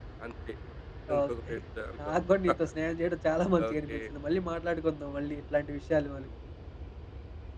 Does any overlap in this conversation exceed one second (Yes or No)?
No